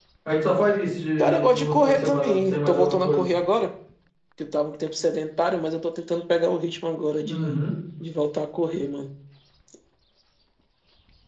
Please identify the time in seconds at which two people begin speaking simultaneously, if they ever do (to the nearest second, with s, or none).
1 s